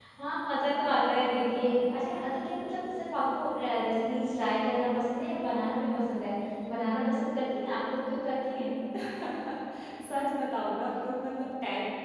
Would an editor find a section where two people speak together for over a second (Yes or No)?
No